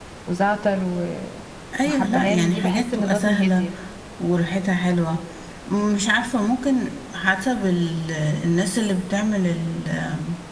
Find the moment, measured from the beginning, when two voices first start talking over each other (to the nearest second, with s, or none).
2 s